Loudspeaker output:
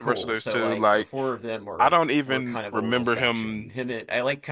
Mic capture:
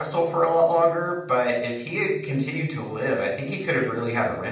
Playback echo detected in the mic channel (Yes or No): No